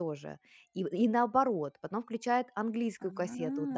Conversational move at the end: listening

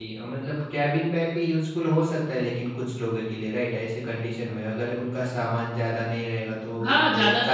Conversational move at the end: taking over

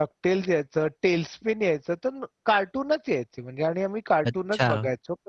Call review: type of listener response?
listening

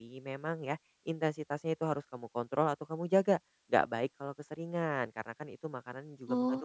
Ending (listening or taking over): listening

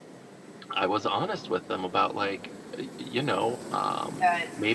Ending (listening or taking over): listening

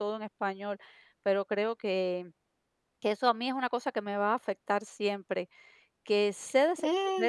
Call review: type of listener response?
listening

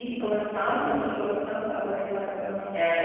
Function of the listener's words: taking over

